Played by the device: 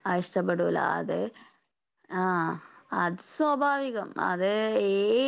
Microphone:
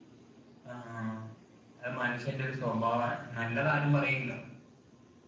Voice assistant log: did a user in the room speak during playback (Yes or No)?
Yes